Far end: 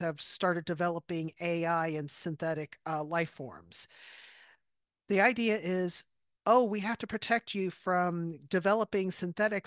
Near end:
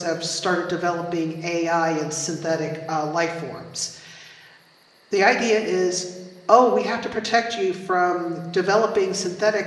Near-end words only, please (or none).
none